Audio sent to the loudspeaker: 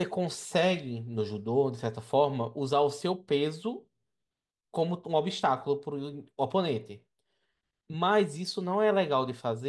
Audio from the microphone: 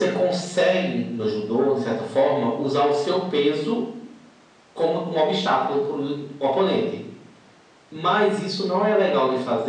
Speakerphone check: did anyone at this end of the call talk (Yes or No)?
No